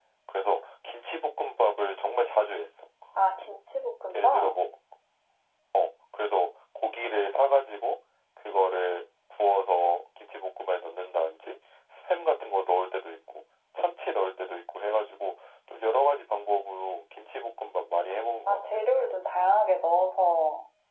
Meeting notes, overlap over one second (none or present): none